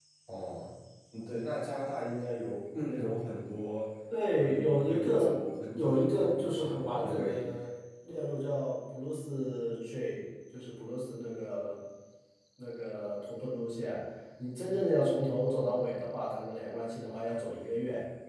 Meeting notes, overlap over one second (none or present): present